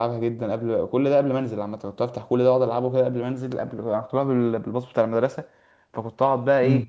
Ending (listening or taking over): listening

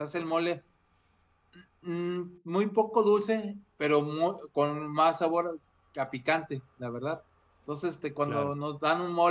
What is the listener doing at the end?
listening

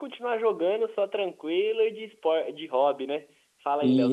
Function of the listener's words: taking over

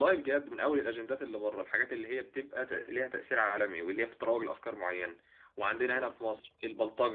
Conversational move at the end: listening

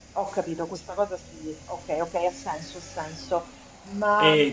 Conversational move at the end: taking over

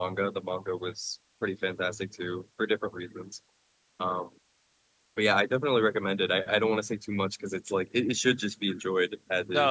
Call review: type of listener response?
taking over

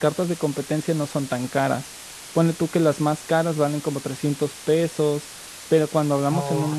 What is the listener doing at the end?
listening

